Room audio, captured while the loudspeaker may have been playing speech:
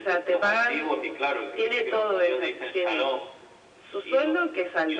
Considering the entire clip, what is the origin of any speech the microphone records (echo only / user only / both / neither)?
echo only